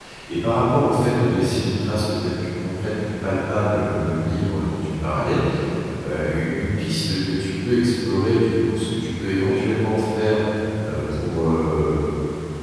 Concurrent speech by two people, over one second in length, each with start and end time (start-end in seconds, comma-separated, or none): none